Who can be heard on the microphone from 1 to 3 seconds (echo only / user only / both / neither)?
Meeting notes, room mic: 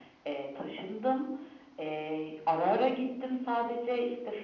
echo only